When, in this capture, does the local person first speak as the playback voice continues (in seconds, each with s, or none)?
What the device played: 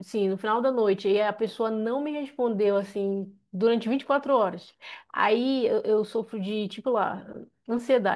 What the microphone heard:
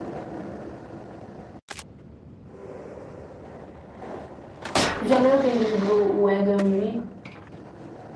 5.0 s